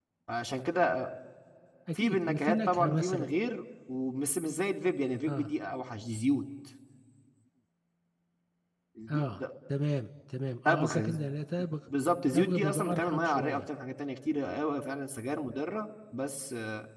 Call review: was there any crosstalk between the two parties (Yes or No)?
Yes